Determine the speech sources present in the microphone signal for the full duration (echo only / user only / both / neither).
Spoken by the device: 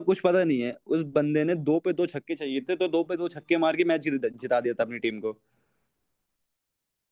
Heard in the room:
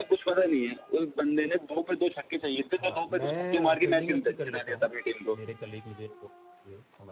both